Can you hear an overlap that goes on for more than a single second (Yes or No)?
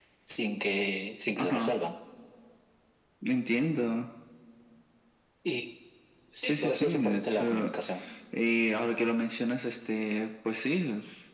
Yes